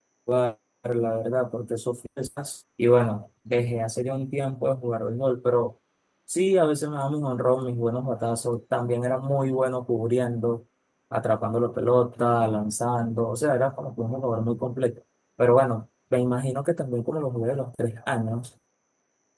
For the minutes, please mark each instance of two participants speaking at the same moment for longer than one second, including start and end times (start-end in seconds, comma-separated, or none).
none